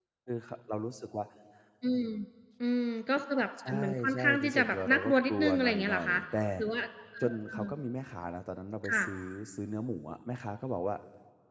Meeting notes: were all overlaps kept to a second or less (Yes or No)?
No